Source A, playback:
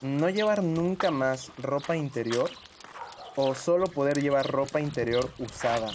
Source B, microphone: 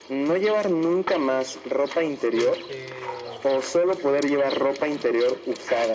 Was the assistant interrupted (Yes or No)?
Yes